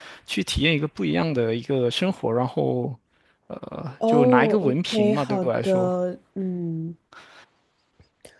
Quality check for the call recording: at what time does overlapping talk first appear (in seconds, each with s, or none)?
4.1 s